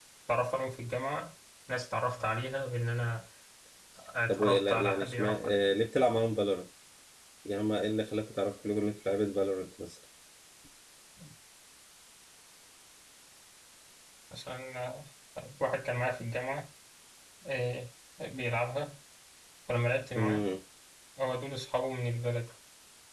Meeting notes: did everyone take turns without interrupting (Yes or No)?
No